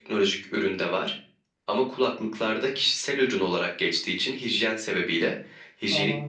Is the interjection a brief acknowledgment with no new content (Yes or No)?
Yes